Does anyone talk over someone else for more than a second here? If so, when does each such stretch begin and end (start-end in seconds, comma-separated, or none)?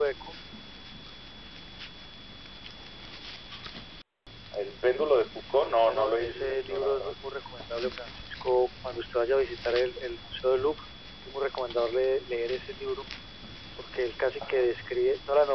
5.8-7.1